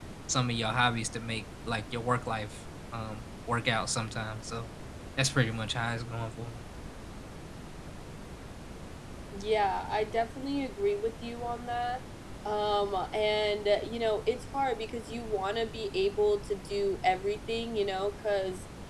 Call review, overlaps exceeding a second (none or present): none